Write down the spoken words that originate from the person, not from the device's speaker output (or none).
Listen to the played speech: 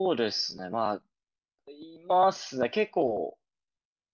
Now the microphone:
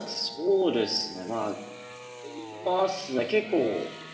none